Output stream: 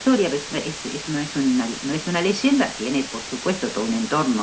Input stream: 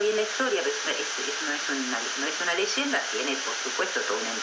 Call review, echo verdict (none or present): present